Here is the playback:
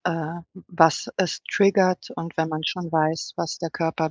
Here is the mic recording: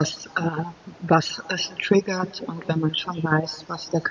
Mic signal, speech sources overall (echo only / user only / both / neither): echo only